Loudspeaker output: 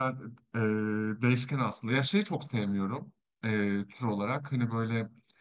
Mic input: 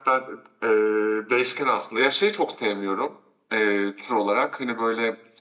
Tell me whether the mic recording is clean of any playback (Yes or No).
No